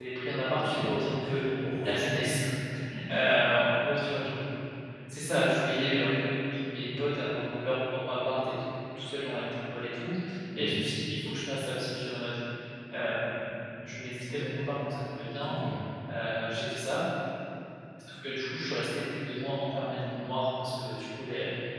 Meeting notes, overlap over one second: none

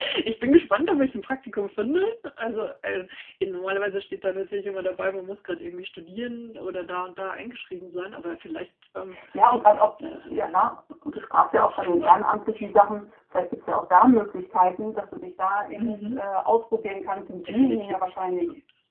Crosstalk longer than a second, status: present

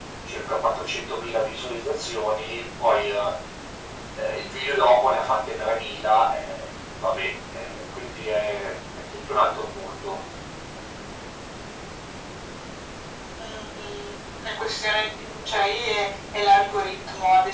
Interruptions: none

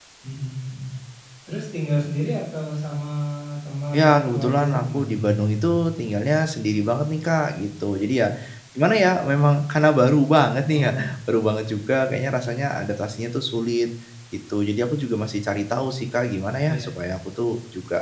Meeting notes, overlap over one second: present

